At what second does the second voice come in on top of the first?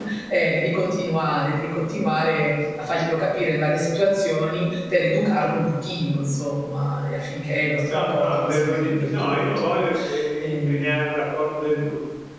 7.9 s

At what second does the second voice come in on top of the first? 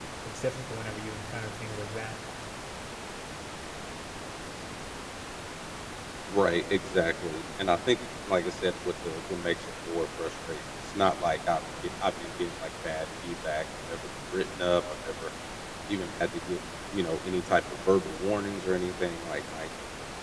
none

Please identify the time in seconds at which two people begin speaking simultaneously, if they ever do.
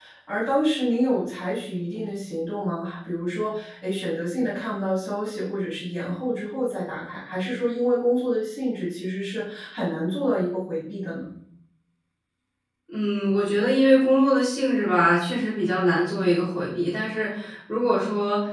none

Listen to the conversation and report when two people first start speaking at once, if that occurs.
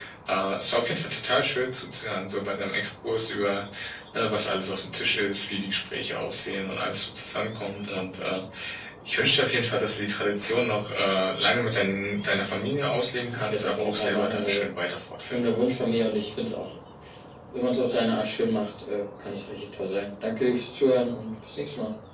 13.2 s

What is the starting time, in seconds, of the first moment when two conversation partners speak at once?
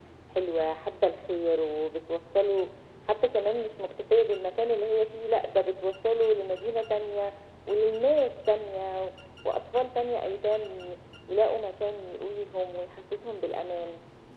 none

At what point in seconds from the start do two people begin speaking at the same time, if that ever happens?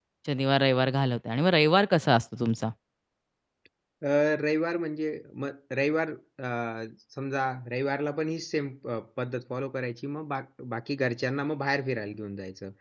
none

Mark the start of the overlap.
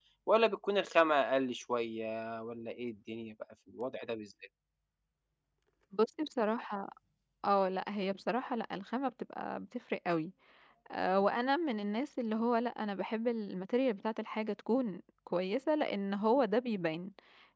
none

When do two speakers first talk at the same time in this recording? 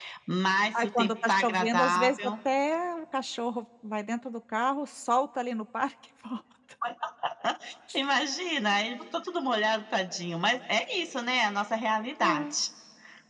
0.8 s

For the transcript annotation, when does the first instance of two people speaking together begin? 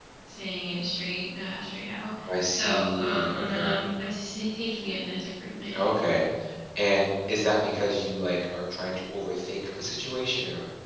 2.3 s

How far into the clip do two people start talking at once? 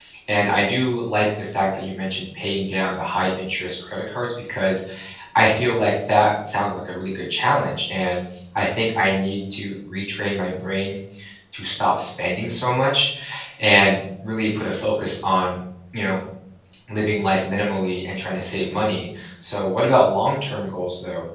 none

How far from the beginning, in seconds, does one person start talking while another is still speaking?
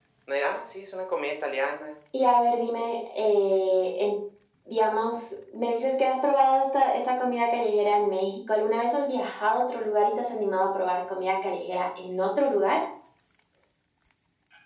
none

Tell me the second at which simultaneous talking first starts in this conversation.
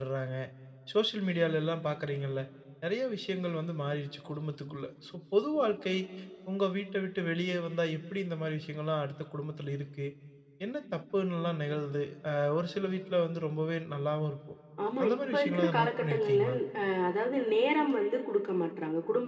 15.0 s

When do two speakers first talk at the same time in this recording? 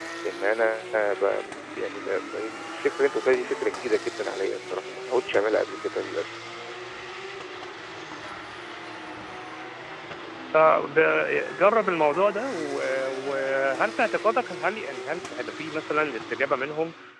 none

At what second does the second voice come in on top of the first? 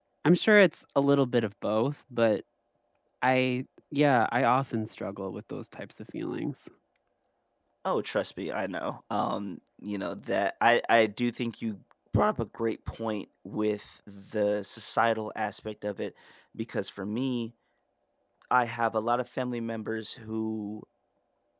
none

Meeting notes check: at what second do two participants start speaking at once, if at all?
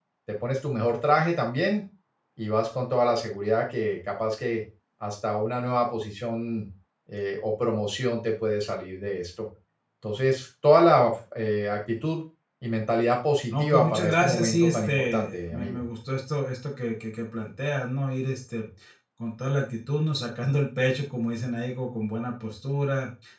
13.5 s

